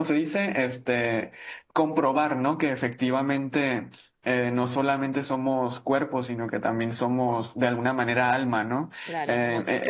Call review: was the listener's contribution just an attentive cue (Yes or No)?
No